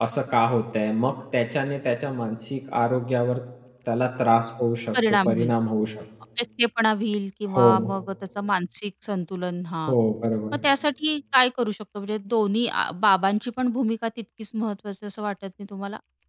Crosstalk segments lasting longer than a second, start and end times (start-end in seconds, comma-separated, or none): none